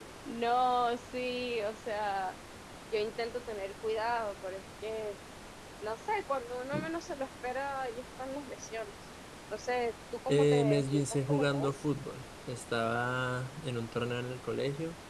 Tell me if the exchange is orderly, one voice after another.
No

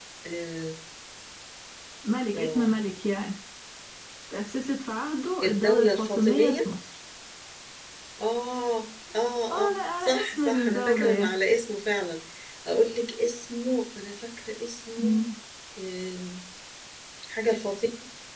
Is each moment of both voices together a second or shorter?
No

